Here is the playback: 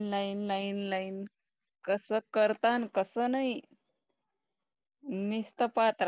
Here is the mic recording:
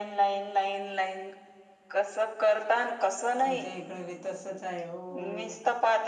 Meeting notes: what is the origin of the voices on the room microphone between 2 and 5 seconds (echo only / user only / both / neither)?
both